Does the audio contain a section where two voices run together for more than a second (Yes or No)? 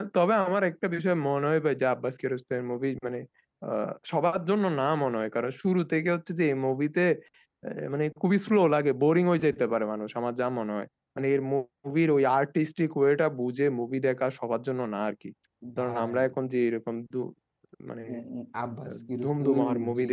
Yes